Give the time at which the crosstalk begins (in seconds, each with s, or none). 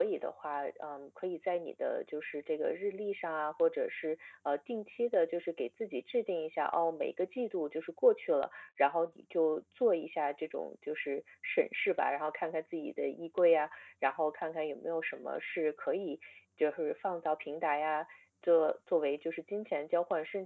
none